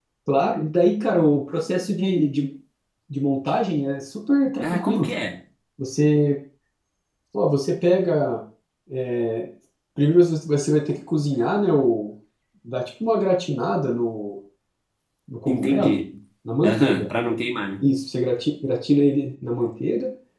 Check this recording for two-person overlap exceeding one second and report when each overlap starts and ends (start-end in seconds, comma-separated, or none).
none